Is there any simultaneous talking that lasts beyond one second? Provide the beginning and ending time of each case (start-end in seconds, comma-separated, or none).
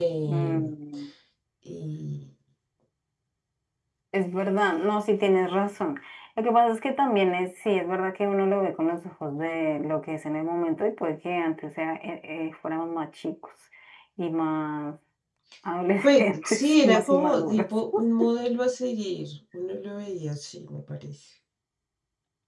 16.0-17.7